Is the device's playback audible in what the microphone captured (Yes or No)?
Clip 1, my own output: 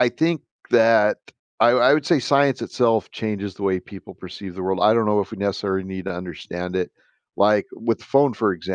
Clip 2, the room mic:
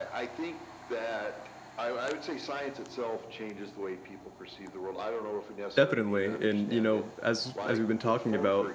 Yes